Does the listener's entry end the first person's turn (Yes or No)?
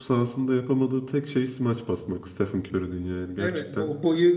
Yes